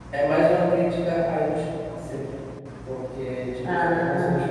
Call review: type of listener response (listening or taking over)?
listening